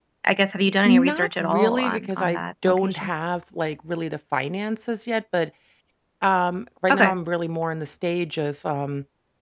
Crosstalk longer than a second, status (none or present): present